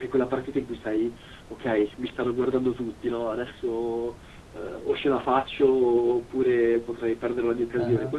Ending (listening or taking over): listening